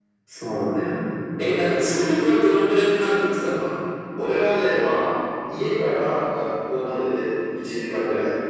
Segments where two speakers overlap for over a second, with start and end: none

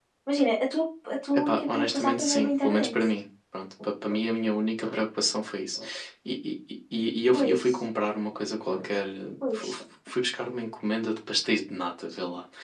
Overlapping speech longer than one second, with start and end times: 1.4-2.9

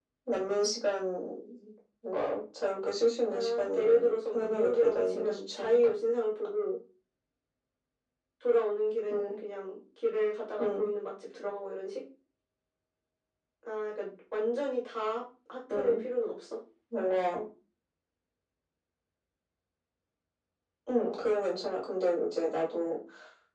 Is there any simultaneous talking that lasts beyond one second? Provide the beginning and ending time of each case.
3.3-5.8

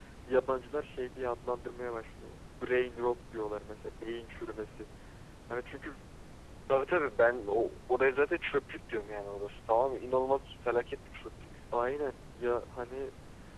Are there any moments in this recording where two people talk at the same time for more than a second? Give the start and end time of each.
none

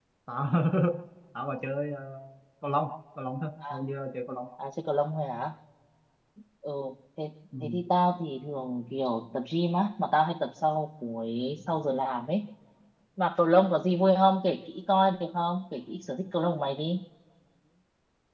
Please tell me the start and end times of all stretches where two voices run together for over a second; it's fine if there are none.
none

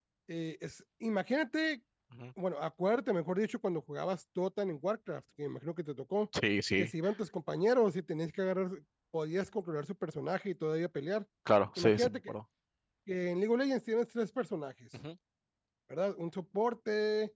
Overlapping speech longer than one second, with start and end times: none

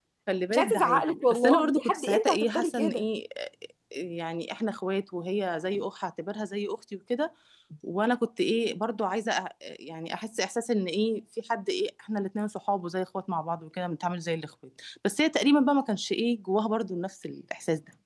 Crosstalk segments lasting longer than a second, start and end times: 0.5-3.0

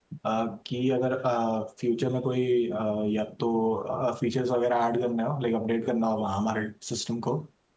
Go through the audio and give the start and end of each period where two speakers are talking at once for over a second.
none

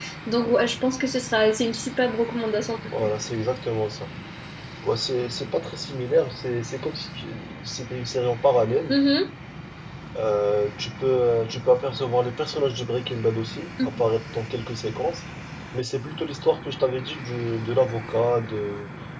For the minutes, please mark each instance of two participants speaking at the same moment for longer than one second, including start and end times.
none

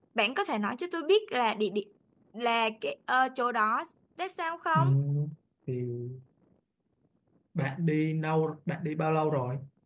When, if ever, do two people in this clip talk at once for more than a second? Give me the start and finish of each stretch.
none

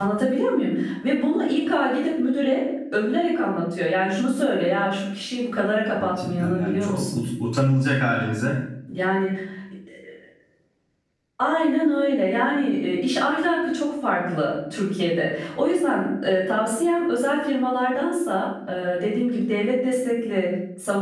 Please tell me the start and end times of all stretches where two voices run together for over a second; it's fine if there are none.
6.0-7.2

